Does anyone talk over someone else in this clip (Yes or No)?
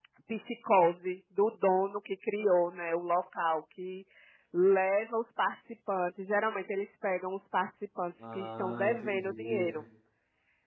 Yes